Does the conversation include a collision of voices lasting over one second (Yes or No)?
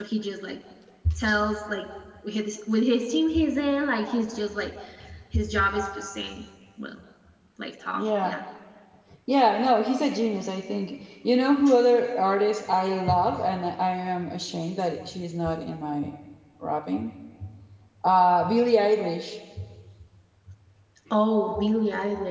No